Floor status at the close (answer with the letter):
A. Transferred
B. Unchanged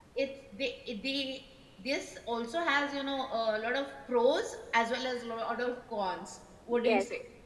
A